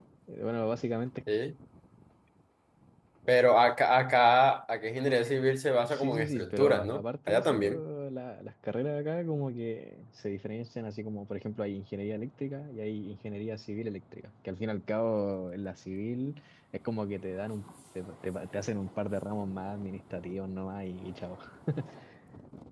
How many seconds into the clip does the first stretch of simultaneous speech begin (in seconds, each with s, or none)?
5.9 s